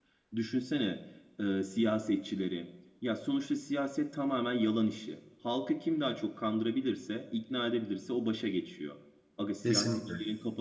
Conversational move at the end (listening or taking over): listening